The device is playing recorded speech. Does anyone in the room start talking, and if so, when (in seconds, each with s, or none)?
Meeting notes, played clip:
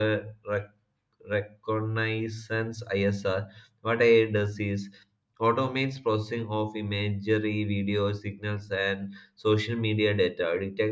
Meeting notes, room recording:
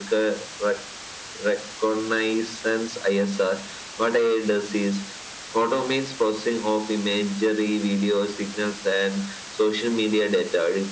none